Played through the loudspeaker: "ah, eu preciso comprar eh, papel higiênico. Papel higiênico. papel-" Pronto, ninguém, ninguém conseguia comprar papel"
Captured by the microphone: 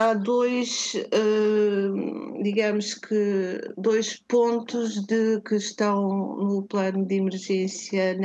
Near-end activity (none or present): present